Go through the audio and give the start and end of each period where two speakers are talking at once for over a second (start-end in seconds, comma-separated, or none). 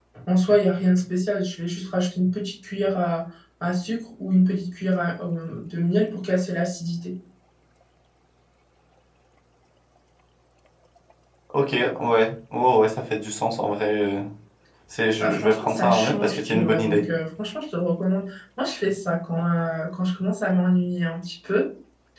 15.2-17.0